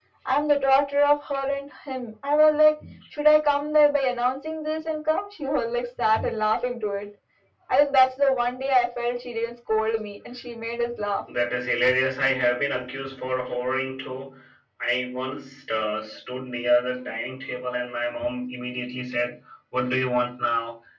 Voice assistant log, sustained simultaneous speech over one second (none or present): none